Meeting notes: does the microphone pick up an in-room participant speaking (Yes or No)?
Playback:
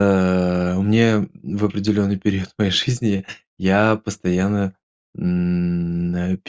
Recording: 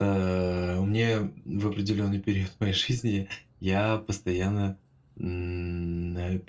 No